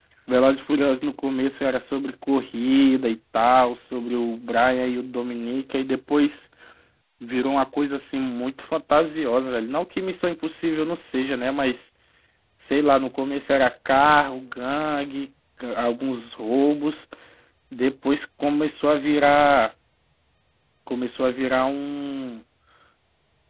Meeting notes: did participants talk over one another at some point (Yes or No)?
No